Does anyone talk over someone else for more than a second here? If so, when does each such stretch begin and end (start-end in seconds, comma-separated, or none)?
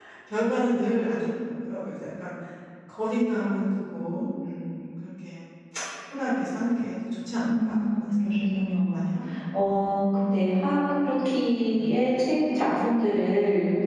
7.4-9.0